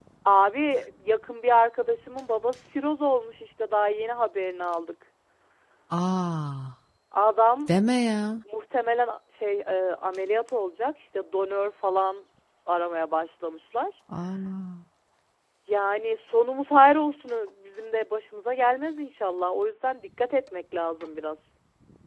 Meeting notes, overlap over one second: none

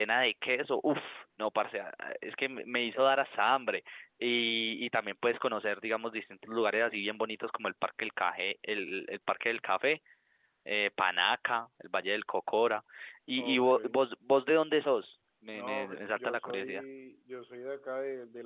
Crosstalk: present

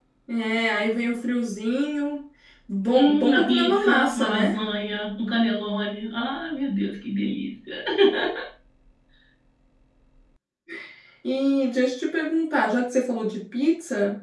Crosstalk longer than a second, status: present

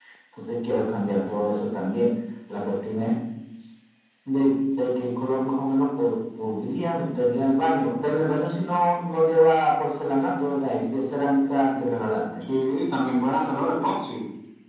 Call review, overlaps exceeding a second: none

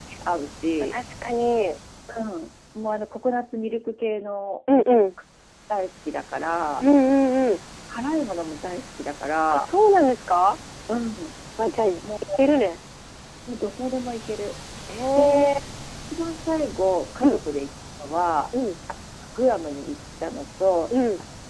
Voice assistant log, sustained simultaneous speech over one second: none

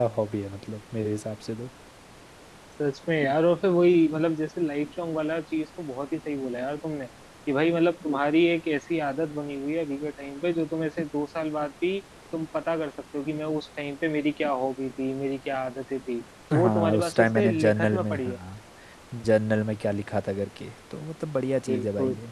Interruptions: present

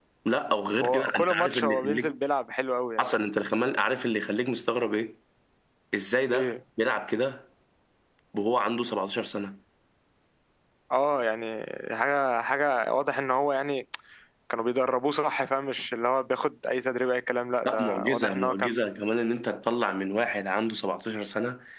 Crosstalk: present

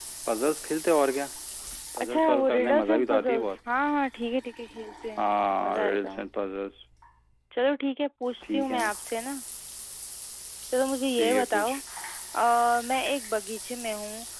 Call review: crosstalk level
present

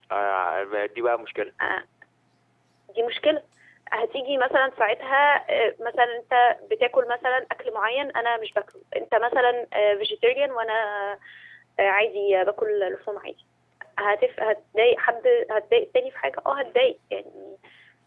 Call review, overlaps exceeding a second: none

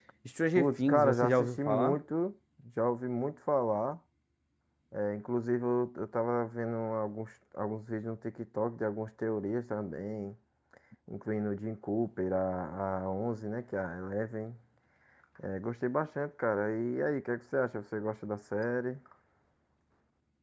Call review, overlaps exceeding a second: present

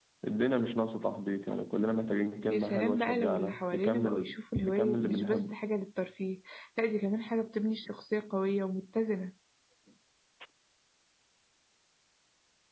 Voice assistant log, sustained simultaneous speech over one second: present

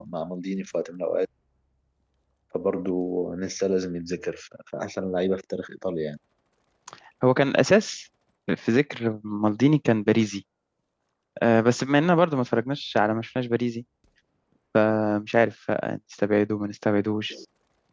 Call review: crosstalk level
none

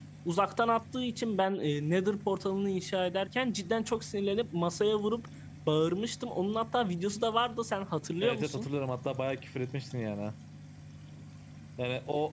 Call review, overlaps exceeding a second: none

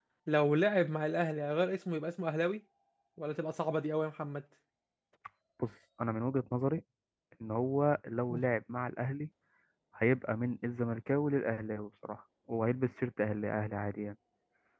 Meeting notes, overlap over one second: none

